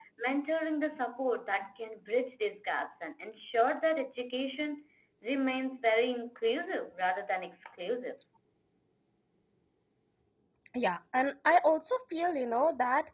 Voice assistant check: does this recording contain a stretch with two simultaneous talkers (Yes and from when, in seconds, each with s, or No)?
No